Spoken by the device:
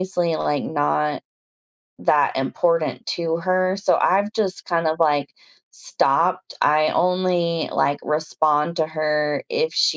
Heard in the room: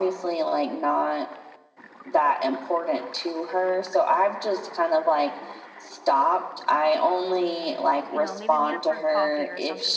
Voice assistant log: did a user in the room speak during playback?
Yes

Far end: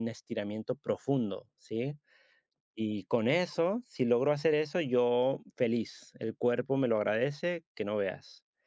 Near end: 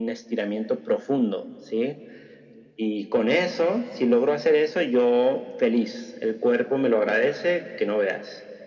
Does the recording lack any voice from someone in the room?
Yes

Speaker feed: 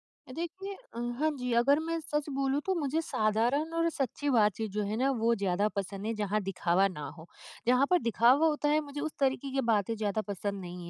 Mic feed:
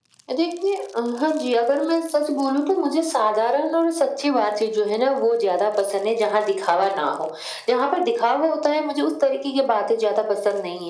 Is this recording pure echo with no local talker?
Yes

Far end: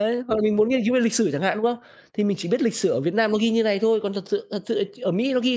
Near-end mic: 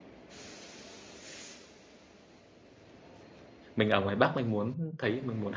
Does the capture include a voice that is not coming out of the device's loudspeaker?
Yes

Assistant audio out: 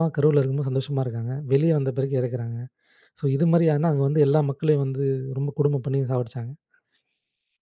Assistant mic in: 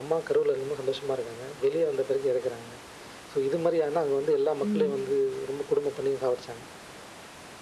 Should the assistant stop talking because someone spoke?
Yes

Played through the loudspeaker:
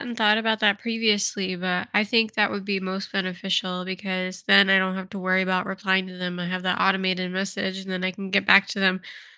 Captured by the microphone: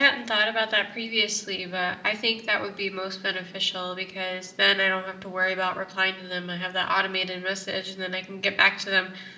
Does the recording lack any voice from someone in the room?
Yes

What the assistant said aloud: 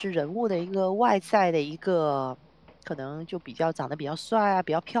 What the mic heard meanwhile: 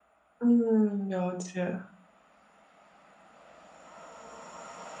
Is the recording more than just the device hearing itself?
Yes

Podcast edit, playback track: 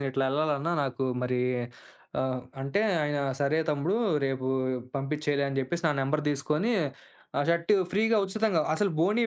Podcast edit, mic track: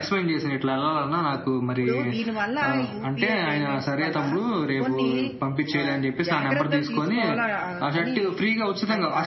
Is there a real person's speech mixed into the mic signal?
Yes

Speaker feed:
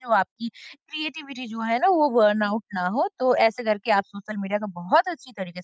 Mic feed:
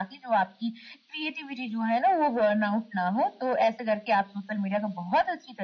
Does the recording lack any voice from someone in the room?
Yes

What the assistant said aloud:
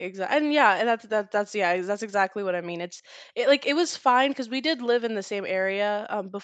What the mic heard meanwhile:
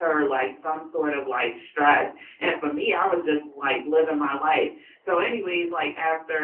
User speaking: Yes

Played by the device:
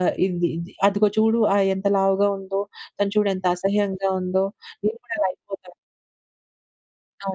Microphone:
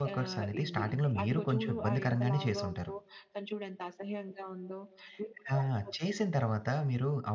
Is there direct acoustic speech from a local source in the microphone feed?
Yes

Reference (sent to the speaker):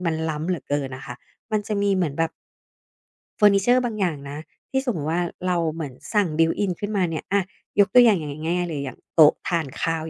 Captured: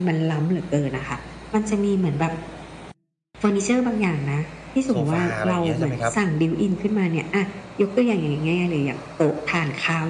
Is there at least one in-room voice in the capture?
Yes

